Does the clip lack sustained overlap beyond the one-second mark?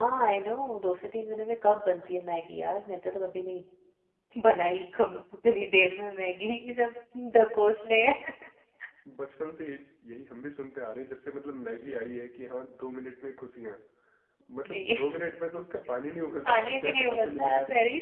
No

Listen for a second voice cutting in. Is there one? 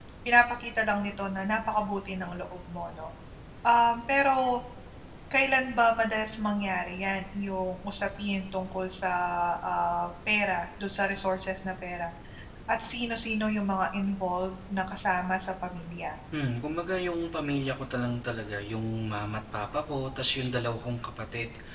No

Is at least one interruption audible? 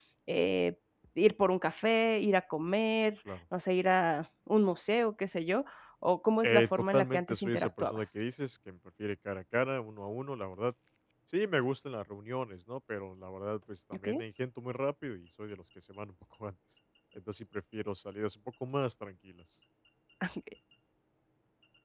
Yes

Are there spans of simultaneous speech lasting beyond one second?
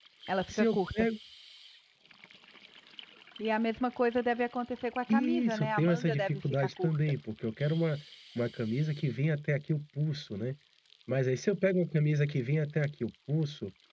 Yes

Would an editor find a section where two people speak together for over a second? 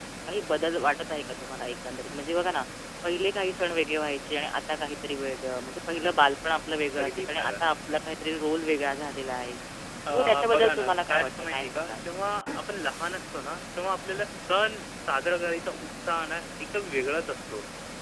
Yes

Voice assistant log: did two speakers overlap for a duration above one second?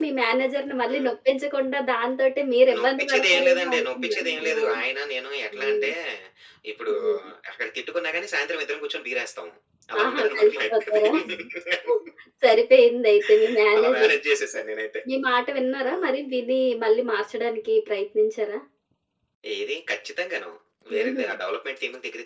Yes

